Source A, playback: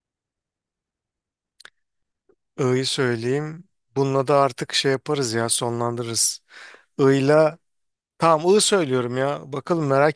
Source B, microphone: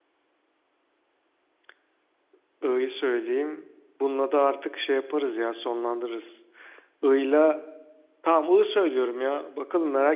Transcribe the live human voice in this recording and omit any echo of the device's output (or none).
none